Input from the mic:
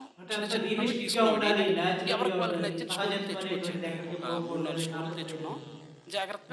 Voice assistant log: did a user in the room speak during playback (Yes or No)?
Yes